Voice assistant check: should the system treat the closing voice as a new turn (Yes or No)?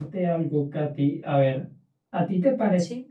No